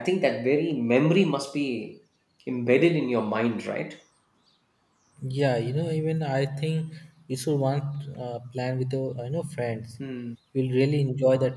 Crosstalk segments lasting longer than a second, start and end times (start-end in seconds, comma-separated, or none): none